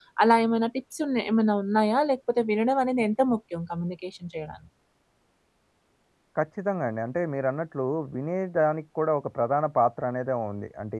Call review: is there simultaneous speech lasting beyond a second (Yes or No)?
No